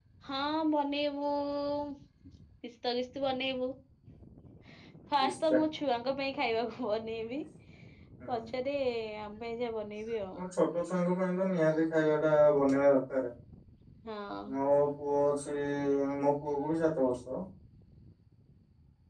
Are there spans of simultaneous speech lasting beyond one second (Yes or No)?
No